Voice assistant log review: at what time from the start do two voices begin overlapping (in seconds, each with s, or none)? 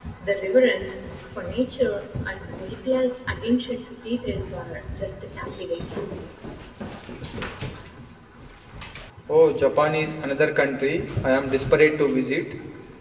none